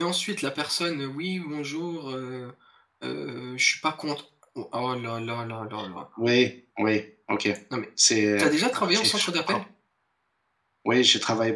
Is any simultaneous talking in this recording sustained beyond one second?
Yes, from 8.2 s

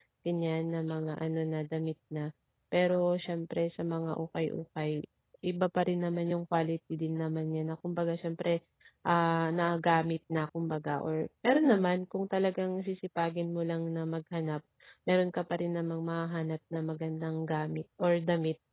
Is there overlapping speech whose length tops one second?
No

